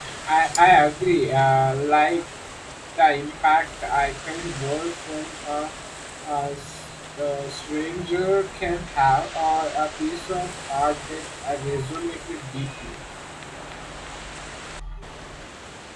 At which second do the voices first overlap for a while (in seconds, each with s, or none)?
none